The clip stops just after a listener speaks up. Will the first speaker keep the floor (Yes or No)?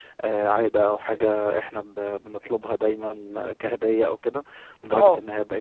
Yes